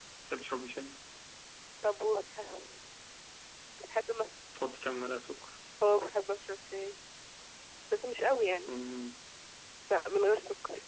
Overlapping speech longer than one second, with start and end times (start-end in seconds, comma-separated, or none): none